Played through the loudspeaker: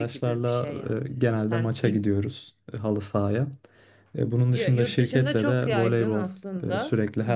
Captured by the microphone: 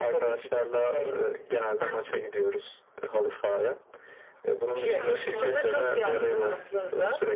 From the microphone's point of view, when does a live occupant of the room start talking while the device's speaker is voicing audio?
4.8 s

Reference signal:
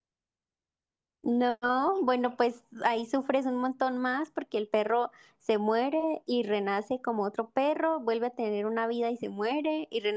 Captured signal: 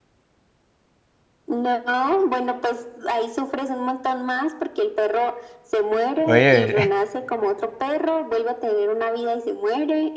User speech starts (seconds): 6.3 s

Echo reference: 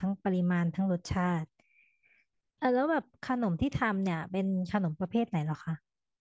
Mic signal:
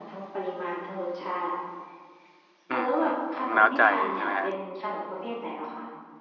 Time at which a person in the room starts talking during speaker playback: 2.7 s

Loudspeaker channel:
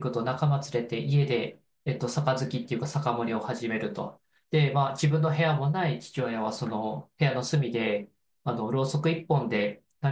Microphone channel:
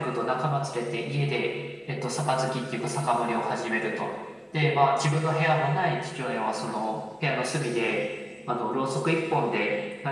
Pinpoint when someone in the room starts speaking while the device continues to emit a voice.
none

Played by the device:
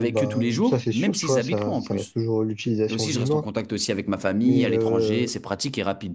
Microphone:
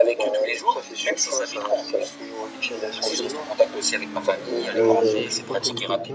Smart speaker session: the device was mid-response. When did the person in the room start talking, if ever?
4.7 s

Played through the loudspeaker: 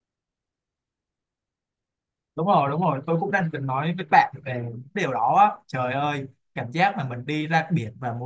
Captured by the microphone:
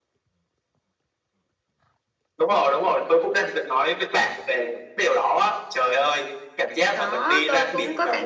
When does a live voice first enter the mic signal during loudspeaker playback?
6.9 s

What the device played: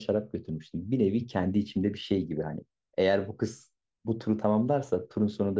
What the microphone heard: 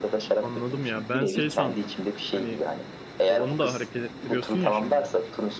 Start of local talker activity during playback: 0.4 s

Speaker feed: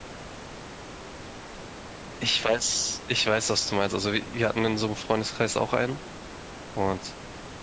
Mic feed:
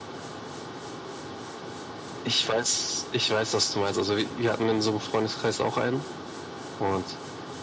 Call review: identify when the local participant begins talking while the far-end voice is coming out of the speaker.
none

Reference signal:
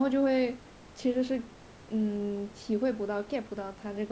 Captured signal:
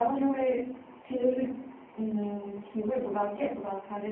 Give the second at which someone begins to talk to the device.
none

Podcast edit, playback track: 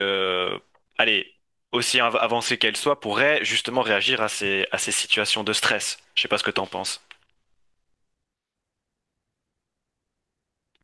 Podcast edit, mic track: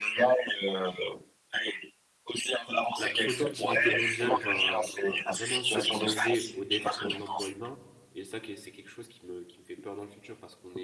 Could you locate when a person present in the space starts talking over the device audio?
3.0 s

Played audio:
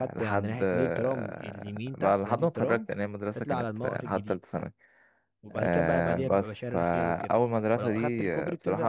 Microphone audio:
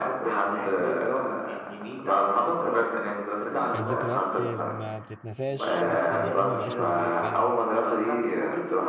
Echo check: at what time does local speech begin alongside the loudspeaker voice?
3.7 s

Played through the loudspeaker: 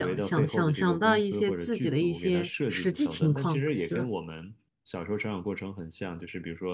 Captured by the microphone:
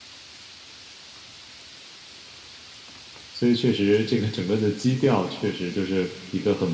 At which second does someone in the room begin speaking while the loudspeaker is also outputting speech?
3.3 s

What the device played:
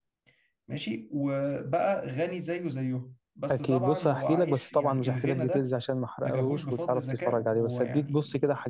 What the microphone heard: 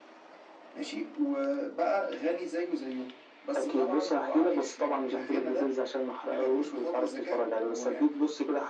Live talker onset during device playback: none

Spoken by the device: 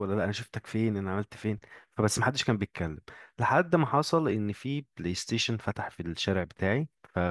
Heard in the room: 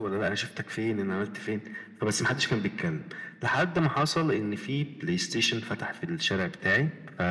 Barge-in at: none

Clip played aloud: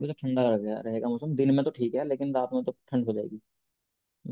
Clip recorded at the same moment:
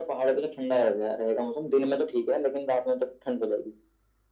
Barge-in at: none

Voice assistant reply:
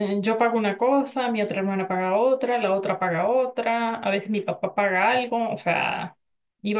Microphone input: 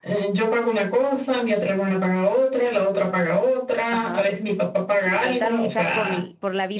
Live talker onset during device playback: 3.9 s

